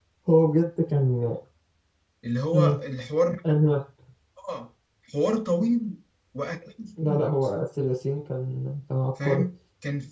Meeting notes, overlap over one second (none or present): none